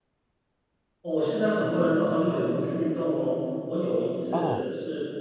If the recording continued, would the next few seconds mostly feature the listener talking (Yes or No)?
No